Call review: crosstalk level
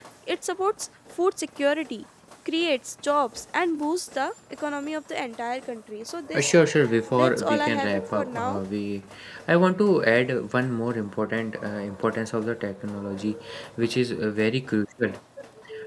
present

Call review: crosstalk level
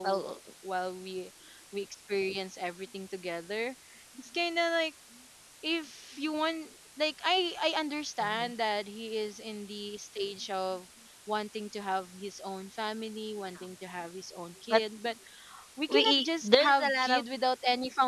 present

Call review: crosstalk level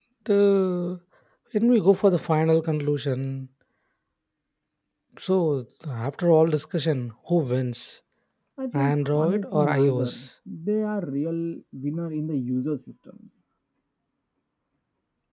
present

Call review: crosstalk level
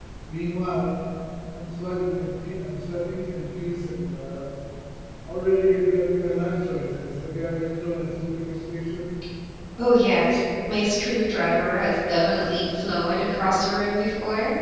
none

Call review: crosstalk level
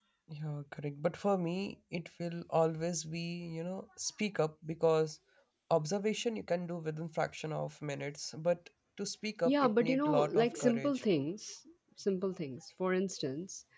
present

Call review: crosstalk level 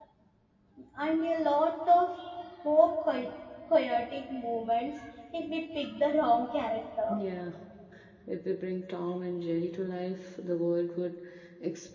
none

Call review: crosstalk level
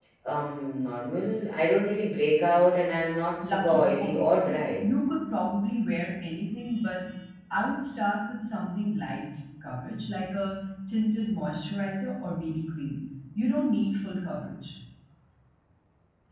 present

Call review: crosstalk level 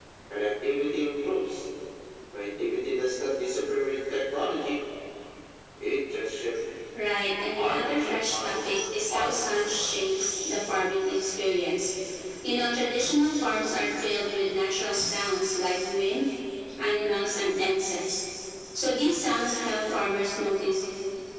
present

